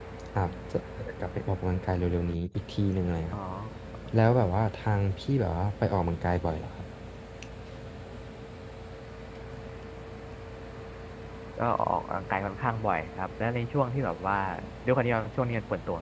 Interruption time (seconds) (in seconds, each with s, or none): none